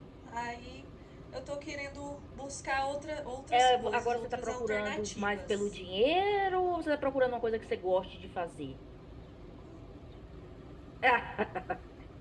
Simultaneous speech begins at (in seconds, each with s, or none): 3.5 s